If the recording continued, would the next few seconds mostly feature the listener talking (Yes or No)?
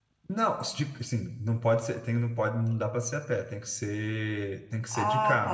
Yes